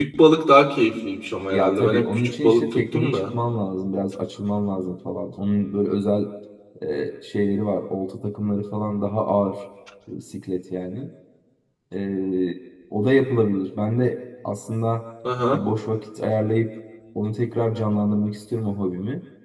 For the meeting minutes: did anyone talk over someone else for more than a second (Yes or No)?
Yes